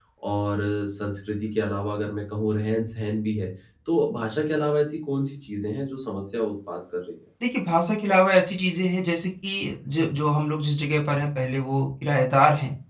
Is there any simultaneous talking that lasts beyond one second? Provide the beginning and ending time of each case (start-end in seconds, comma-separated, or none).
none